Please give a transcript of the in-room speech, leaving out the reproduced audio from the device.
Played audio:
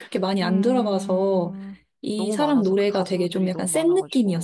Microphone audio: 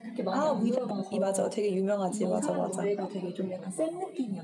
아, 위다이 맞아. 되게 유명하지. 맞아, 맞아.

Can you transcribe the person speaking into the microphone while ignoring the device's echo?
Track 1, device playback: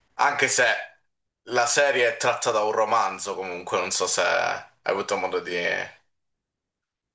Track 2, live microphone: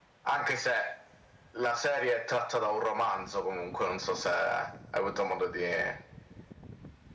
none

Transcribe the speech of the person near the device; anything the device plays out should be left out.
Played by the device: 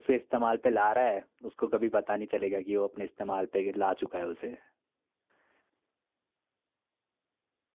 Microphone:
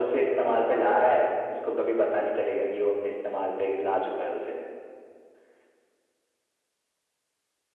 none

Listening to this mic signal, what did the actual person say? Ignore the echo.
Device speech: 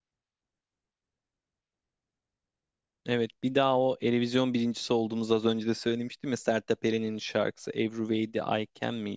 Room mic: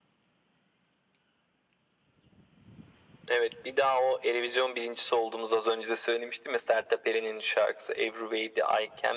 none

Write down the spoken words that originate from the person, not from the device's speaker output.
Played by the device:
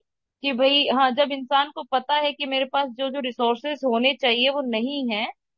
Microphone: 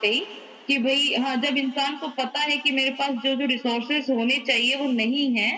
none

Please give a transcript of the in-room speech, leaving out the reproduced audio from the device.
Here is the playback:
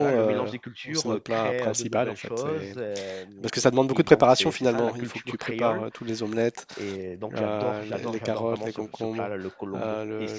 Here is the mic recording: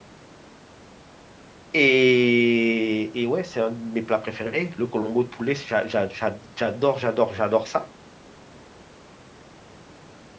Et, et ouais, c'est un de mes plats préférés, le Colombo de poulet, j'a- j'a- j'a- j'adore, j'adore, j'adore ça.

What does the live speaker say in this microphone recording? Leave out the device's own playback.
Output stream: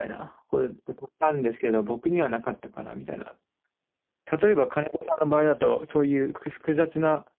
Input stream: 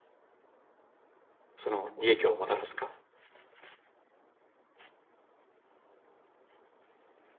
その利益をもたらすか、

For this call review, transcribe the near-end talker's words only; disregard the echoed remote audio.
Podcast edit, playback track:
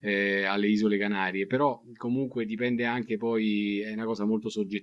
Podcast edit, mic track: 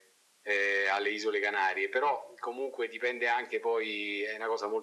none

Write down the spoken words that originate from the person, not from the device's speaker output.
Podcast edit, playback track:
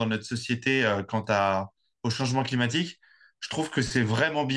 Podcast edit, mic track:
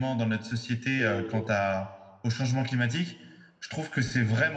Et

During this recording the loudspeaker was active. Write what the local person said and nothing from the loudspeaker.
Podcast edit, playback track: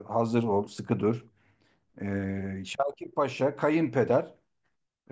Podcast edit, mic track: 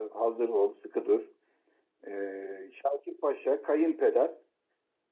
none

